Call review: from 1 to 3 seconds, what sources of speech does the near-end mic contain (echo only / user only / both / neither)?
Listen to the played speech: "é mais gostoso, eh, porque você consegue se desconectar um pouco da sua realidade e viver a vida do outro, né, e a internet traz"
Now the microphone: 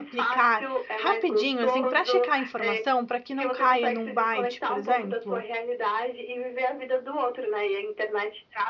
both